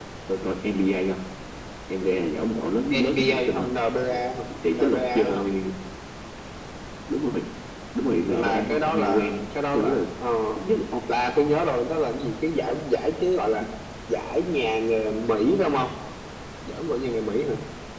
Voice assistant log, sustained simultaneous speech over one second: present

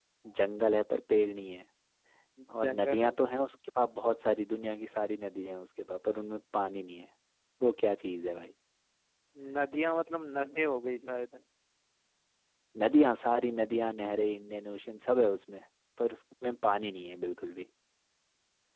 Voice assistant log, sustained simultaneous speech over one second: none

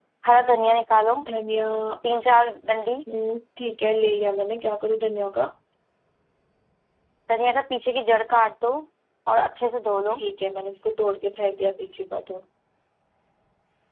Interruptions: none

